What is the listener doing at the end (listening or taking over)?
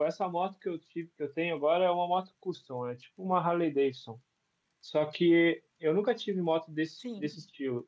listening